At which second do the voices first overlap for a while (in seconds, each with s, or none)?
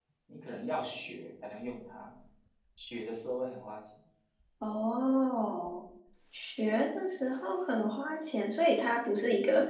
none